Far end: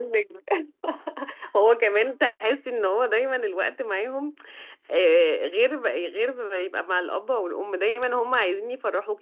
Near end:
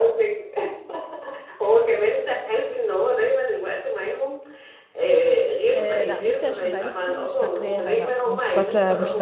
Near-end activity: present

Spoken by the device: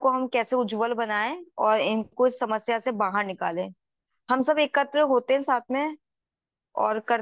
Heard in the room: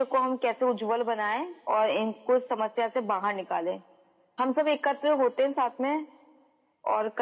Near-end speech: none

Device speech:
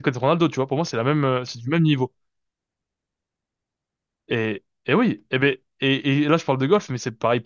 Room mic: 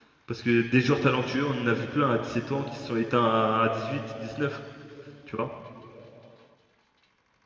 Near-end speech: present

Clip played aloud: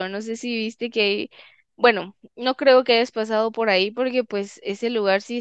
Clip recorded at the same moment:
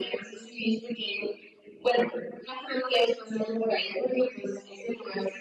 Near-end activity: none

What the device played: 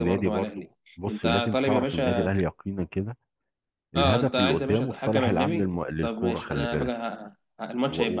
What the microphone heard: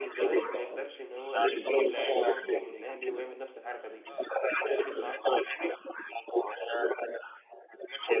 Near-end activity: present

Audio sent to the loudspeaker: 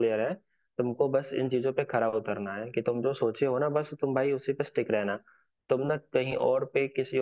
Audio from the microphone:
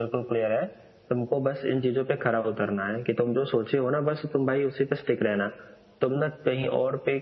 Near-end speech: none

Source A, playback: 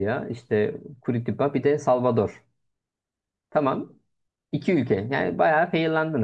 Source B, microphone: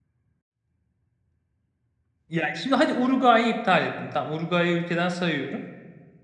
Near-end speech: present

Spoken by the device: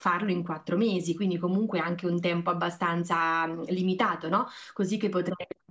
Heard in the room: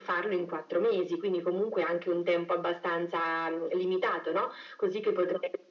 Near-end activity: none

